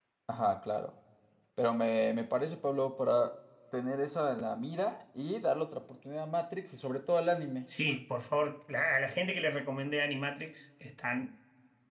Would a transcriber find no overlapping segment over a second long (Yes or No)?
Yes